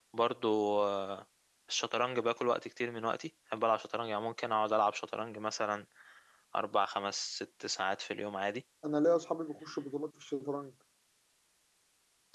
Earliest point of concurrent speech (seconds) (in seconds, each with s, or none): none